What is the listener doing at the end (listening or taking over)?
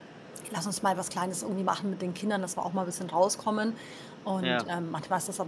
listening